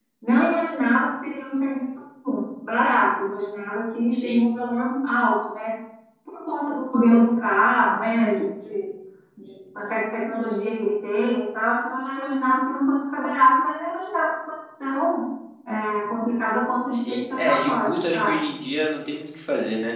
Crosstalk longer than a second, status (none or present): present